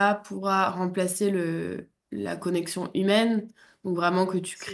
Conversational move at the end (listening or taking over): listening